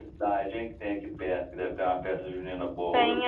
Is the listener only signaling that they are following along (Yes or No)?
No